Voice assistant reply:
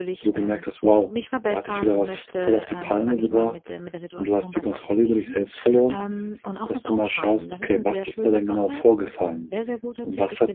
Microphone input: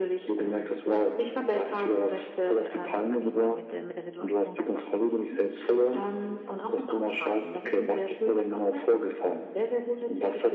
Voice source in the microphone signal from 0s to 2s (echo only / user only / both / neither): echo only